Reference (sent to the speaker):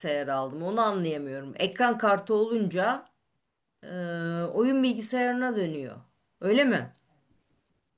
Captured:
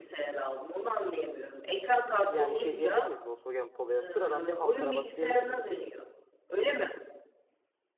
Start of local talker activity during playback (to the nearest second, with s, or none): 2 s